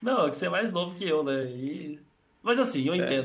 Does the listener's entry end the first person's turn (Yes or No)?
No